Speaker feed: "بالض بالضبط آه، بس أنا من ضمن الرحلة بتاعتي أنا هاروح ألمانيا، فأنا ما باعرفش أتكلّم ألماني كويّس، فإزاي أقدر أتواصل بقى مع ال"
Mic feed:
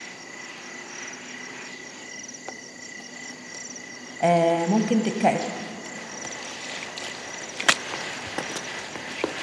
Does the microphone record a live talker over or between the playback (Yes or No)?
Yes